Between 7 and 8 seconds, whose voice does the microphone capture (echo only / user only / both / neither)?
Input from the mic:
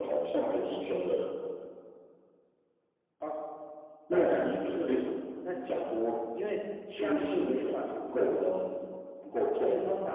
echo only